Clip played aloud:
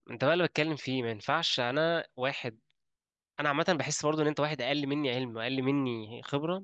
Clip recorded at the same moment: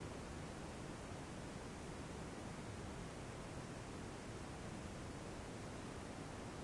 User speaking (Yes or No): No